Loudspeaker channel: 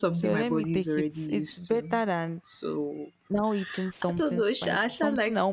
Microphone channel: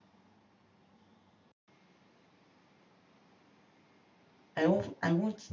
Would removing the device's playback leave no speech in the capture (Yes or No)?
No